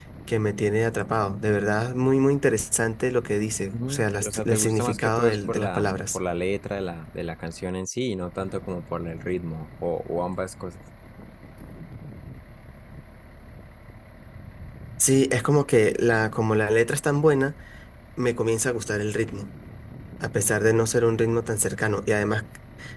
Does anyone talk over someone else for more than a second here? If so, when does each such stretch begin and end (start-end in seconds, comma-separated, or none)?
3.7-6.2